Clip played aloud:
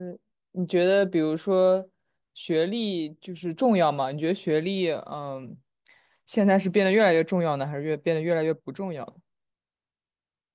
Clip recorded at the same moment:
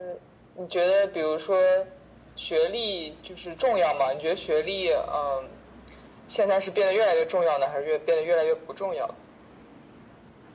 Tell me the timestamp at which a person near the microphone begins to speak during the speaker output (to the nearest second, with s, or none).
none